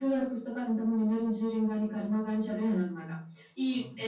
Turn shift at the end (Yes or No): No